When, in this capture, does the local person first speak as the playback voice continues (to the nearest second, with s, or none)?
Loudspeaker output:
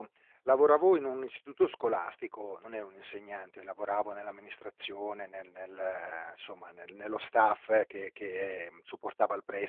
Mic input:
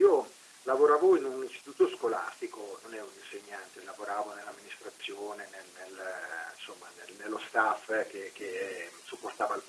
none